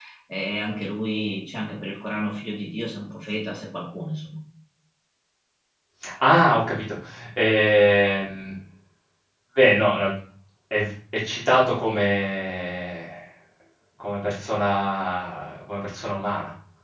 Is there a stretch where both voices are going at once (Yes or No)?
No